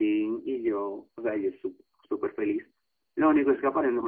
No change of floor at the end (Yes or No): Yes